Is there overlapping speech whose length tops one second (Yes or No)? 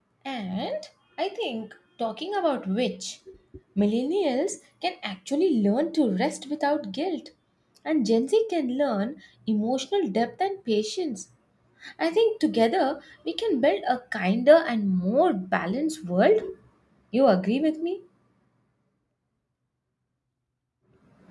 No